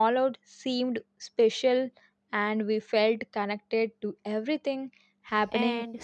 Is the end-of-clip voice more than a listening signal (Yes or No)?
Yes